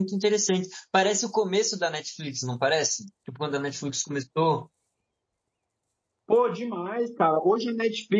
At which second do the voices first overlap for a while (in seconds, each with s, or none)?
none